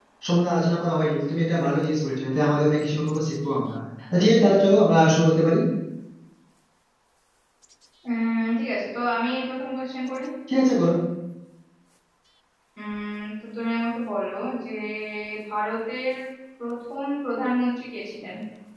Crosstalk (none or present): none